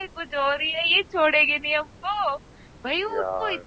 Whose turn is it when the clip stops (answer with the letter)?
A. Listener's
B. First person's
B